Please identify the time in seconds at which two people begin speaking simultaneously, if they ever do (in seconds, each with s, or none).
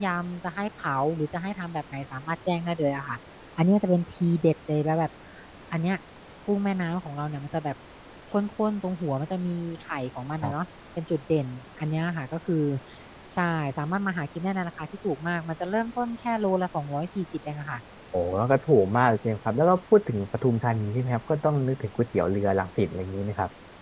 none